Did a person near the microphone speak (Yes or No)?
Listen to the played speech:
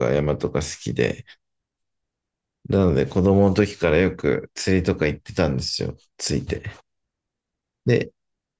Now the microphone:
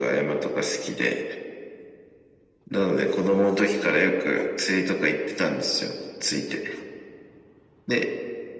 Yes